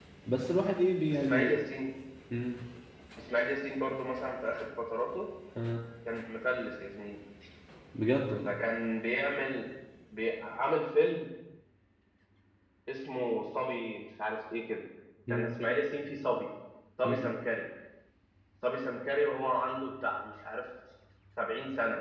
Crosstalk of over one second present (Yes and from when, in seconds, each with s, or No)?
No